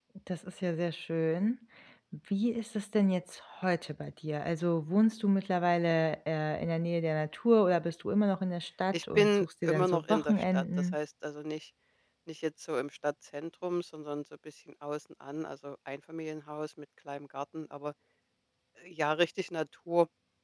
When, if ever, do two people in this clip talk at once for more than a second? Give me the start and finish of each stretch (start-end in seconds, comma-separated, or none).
8.9-11.0